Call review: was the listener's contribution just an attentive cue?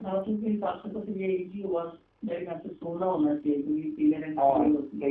No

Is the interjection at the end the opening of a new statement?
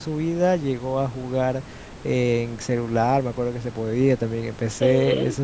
No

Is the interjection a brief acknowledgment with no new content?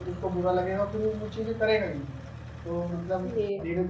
Yes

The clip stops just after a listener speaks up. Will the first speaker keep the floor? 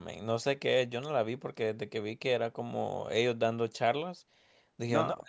Yes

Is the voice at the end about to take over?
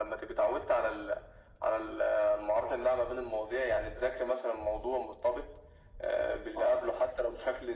No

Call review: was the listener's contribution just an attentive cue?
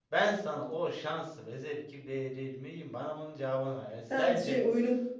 No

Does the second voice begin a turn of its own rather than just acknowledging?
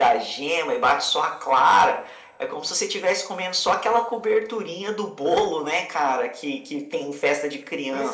Yes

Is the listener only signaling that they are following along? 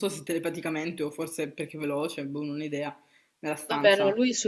No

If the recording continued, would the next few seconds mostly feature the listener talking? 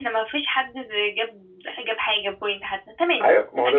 Yes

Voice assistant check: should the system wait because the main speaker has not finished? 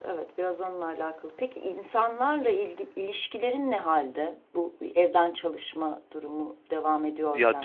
No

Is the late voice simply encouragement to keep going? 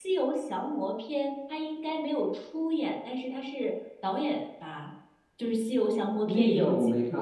No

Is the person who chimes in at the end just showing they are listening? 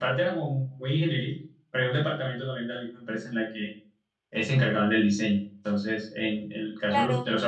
Yes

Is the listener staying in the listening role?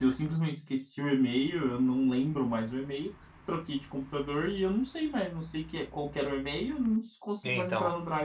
Yes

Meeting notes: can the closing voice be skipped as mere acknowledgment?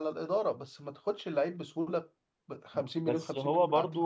No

